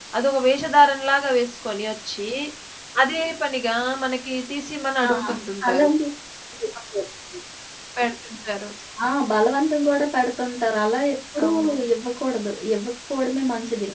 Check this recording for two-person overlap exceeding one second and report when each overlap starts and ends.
none

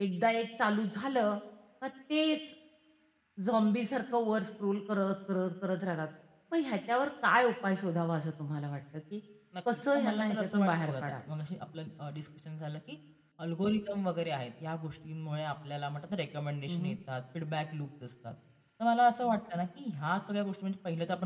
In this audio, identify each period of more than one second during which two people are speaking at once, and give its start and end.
9.9-11.2

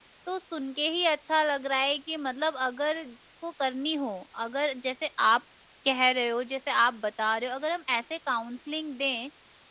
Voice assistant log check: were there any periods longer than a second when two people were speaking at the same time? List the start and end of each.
none

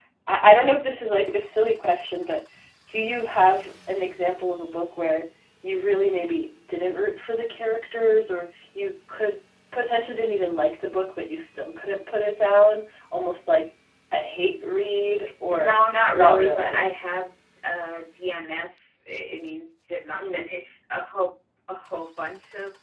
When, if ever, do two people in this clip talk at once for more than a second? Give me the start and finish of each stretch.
15.5-16.9

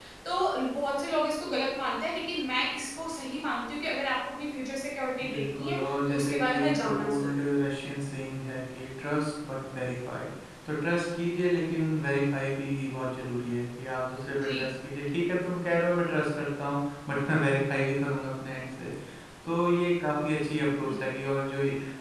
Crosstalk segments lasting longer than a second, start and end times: 5.3-7.4

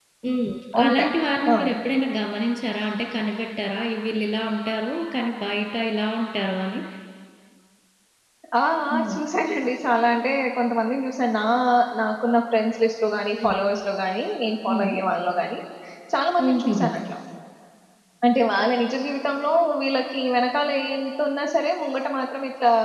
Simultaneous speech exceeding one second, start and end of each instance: none

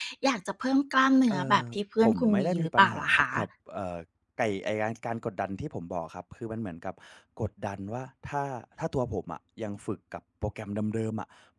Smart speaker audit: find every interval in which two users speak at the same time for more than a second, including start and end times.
2.0-3.3

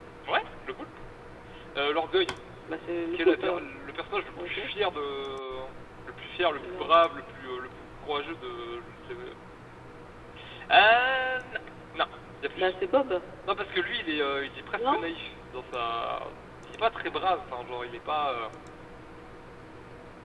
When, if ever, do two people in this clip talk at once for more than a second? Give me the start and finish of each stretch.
none

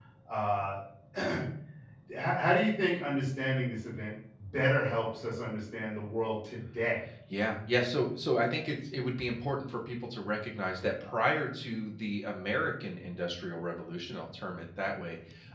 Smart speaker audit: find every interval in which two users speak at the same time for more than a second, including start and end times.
none

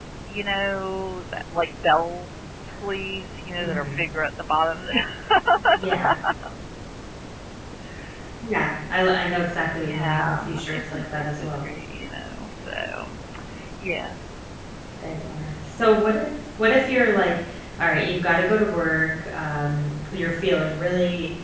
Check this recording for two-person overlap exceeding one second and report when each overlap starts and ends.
9.8-11.6

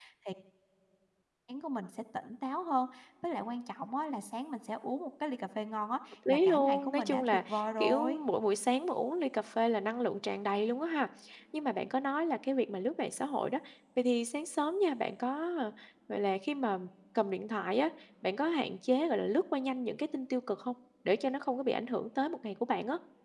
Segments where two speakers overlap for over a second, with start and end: 6.3-8.2

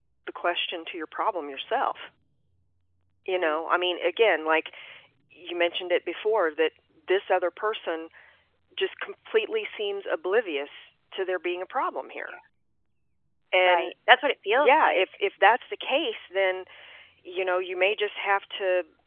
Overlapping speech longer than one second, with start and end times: none

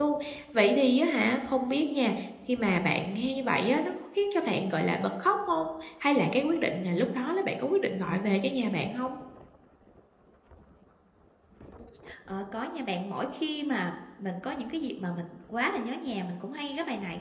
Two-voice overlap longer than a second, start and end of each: none

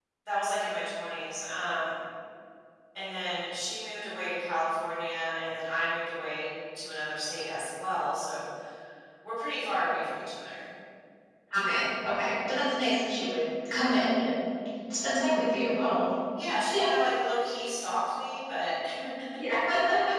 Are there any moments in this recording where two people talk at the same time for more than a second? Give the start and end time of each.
none

